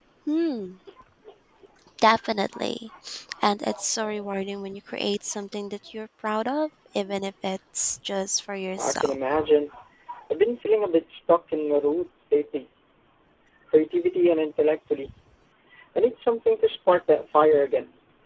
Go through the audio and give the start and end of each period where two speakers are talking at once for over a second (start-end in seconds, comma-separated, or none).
none